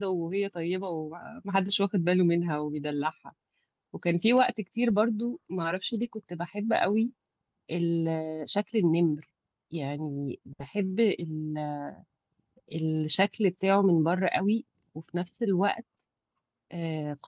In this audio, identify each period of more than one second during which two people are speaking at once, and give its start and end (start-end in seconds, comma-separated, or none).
none